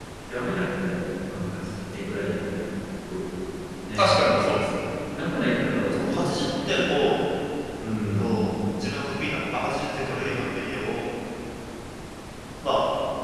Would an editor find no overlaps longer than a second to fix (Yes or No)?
No